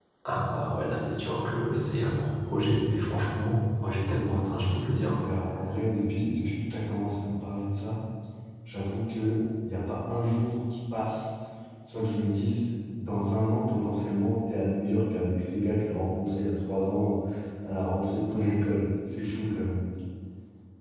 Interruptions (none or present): none